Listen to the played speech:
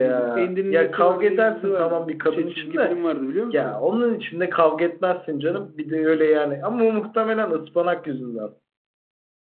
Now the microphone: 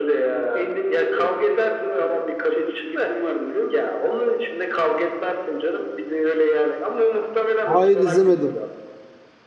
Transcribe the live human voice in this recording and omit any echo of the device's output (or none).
Hayır izlemedim.